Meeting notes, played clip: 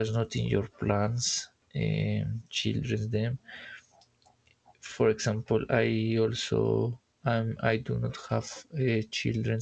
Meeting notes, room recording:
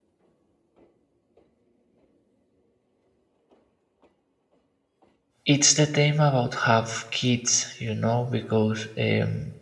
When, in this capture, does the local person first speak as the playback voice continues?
5 s

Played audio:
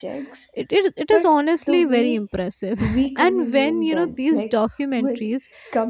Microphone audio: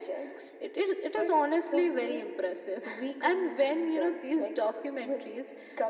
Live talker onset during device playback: none

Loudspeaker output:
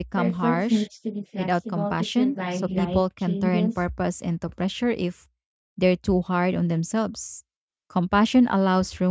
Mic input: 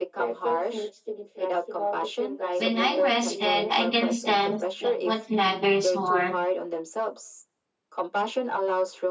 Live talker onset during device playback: 3 s

